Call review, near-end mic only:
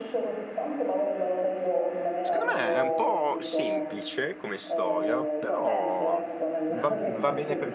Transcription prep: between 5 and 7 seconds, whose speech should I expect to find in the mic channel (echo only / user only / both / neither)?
both